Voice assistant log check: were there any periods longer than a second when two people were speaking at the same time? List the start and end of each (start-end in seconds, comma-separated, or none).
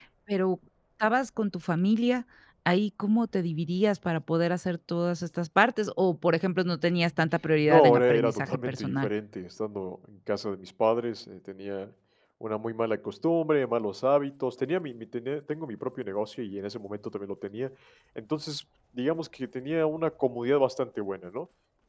7.7-9.1